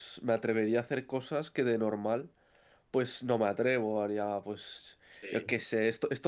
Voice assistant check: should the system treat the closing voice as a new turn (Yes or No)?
No